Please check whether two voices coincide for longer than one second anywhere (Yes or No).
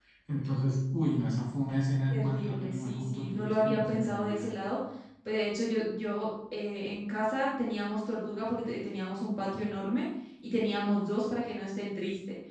Yes